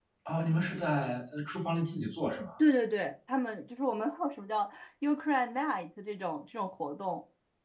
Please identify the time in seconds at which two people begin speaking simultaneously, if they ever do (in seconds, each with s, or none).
none